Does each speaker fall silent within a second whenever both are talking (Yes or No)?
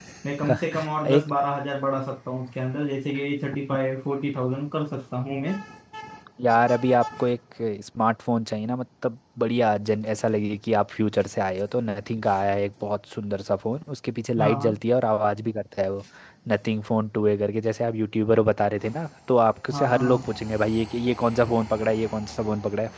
Yes